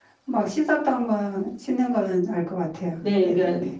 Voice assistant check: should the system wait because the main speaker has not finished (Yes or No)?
No